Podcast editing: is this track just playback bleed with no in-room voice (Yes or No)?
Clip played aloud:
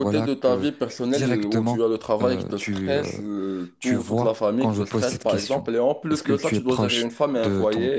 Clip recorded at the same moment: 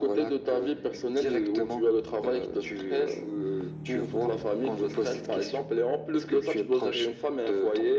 Yes